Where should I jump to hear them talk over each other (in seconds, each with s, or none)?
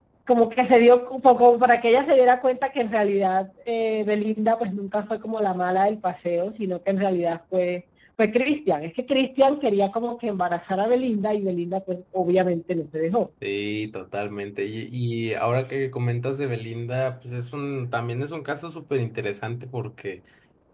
none